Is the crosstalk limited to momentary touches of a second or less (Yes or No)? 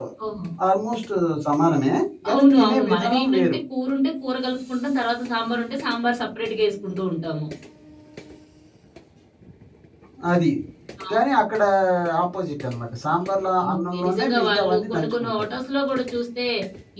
No